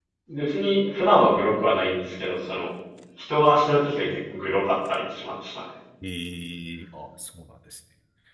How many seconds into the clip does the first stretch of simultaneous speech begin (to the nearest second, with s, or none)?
none